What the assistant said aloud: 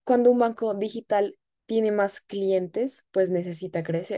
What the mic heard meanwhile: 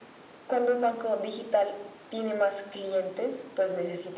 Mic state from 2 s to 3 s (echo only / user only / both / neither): echo only